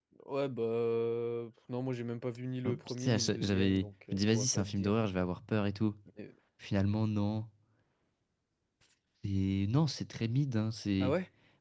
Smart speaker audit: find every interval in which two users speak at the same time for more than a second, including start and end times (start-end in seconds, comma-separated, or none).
2.6-4.9